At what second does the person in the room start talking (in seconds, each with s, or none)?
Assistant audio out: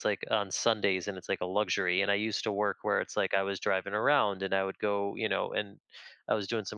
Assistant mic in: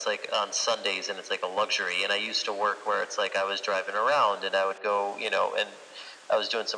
none